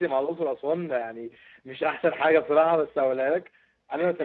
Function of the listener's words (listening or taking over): listening